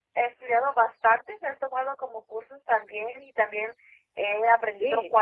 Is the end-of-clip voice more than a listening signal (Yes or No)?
No